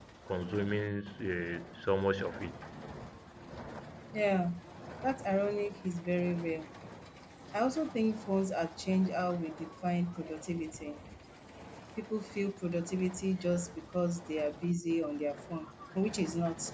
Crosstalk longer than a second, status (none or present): none